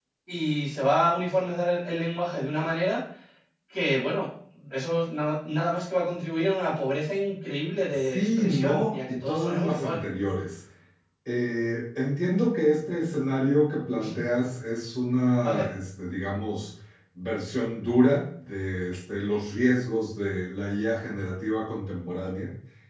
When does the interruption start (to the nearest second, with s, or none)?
8 s